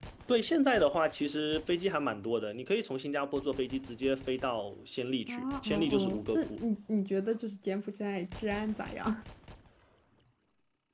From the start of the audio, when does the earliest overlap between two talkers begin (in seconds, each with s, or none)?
5.3 s